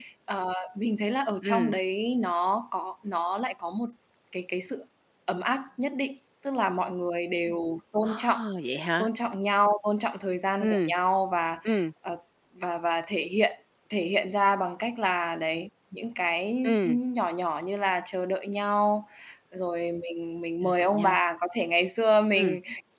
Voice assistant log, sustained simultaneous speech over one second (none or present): none